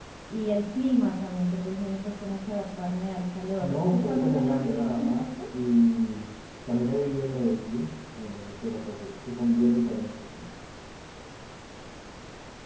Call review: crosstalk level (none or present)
present